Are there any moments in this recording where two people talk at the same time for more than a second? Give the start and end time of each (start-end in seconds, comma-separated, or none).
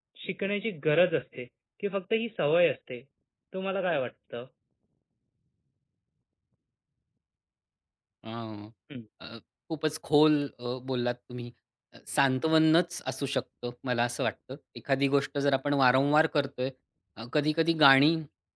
none